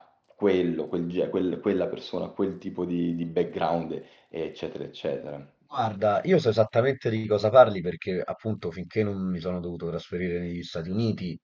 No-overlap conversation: Yes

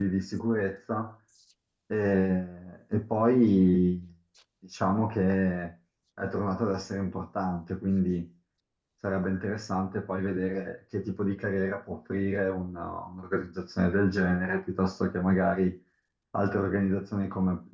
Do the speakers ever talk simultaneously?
No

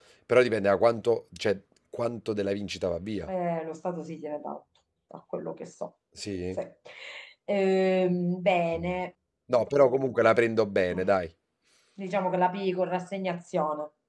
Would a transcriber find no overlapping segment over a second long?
Yes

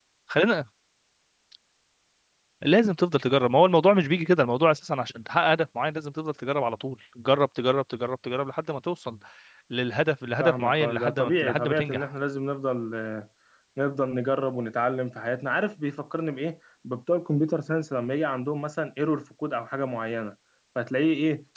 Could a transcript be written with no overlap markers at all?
No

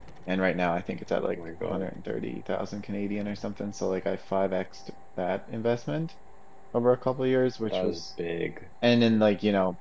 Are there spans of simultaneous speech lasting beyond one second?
No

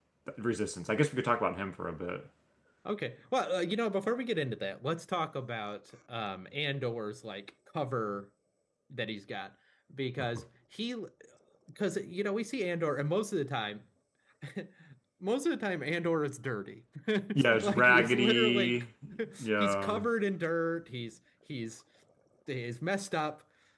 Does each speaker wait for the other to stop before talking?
No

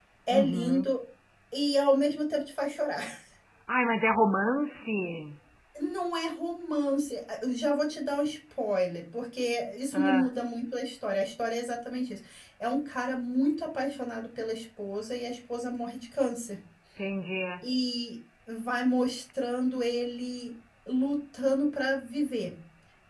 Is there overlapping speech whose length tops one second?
No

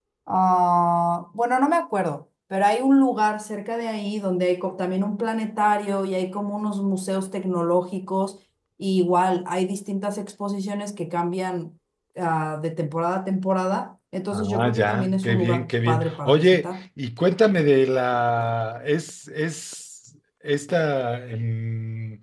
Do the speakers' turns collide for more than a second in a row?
Yes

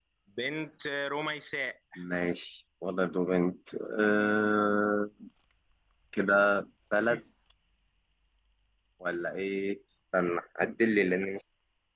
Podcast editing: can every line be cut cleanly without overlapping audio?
Yes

